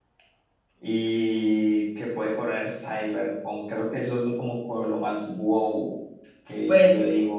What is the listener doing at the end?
taking over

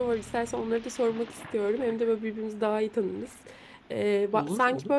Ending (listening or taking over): listening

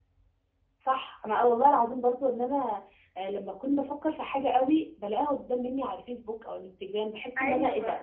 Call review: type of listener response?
listening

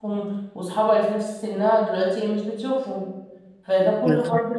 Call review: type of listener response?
listening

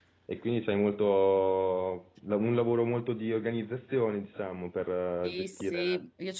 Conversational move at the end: taking over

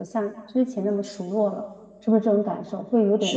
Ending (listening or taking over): taking over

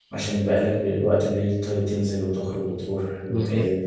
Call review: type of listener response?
taking over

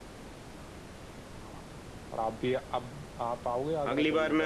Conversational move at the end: taking over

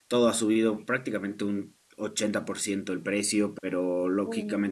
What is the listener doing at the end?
listening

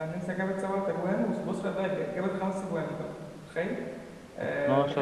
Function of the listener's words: listening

